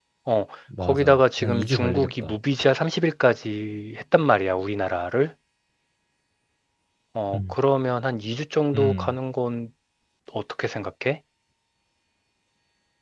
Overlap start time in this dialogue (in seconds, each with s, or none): 0.8 s